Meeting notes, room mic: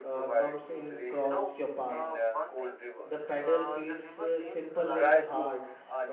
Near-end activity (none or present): present